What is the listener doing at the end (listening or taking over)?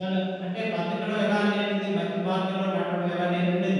taking over